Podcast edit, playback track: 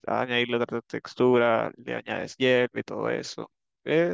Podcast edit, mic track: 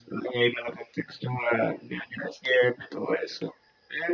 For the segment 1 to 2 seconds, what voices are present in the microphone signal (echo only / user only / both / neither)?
echo only